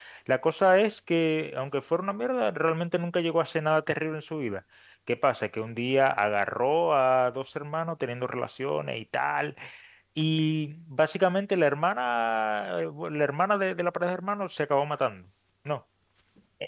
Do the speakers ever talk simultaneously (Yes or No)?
No